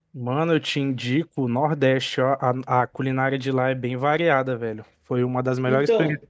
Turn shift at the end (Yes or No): No